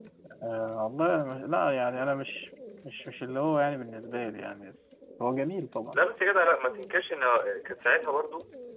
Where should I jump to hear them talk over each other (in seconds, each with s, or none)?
none